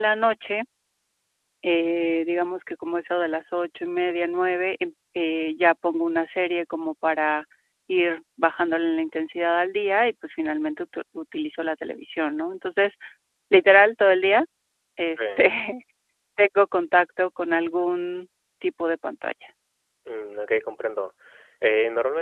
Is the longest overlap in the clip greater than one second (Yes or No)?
No